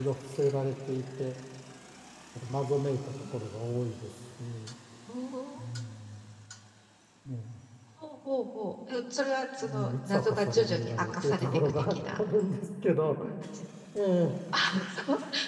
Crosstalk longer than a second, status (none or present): present